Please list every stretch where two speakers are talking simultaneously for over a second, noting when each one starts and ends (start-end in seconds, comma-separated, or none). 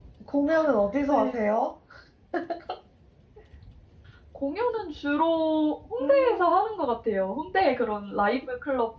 none